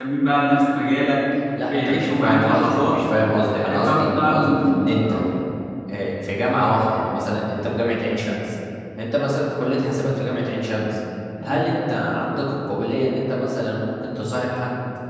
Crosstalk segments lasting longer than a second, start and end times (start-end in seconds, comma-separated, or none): 1.7-3.0, 3.5-5.2